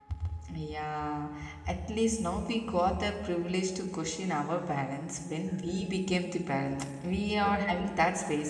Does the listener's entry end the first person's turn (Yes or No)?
No